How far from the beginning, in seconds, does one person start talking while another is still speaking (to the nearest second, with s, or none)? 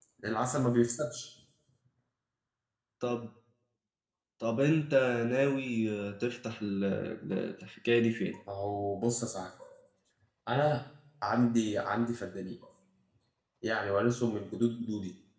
none